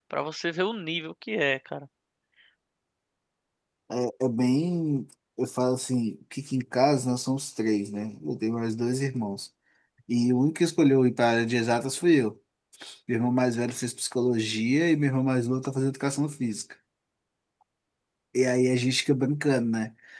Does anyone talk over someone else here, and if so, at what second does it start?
none

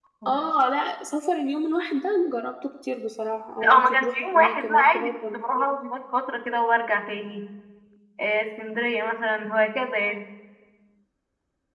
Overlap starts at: 3.6 s

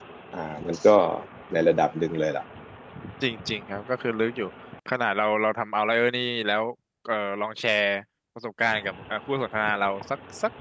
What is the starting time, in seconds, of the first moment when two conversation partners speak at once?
none

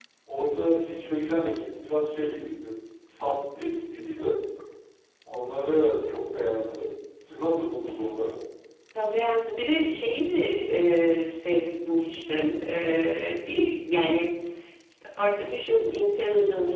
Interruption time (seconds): none

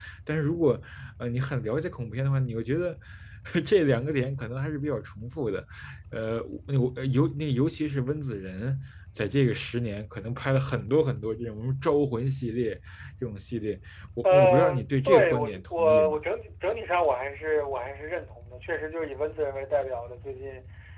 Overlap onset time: 14.2 s

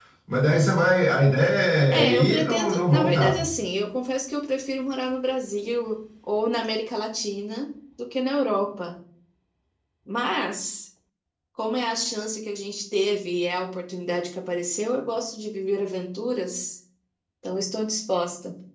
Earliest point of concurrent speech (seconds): 2.0 s

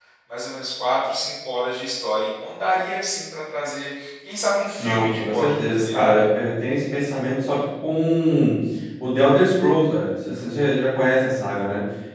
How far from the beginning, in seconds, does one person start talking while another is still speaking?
4.8 s

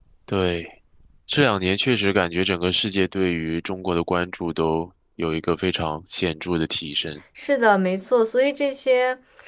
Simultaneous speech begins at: none

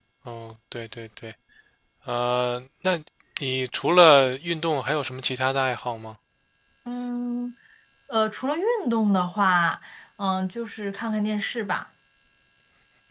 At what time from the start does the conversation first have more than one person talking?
none

